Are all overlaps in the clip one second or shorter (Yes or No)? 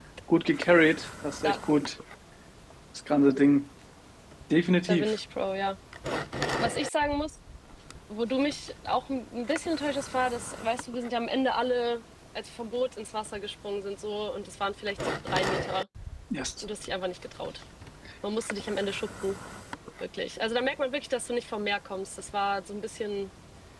Yes